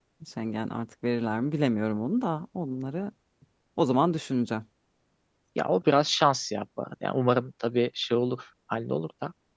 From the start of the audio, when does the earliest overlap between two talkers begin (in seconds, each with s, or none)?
none